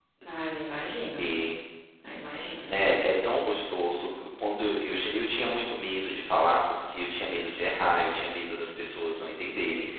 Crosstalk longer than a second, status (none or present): none